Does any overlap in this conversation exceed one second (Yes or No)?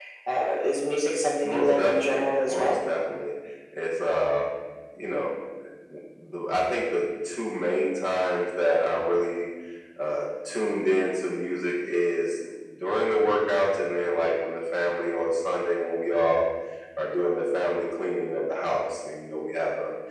Yes